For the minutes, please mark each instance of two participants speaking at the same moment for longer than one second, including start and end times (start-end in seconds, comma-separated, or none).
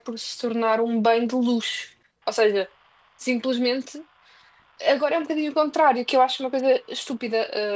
none